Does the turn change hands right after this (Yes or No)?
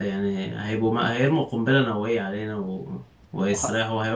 No